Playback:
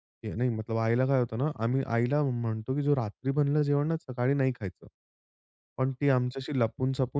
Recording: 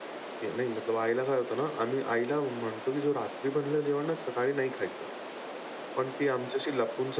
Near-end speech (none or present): none